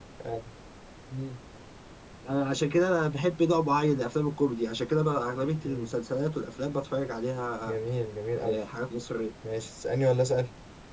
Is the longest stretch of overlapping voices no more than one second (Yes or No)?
Yes